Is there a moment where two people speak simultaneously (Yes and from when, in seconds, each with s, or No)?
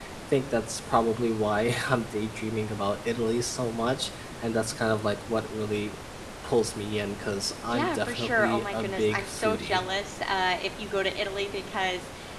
Yes, from 7.7 s